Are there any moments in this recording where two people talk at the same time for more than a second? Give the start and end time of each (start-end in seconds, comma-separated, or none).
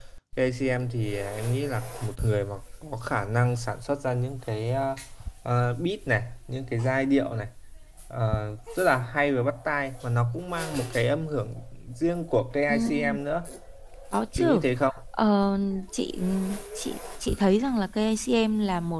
none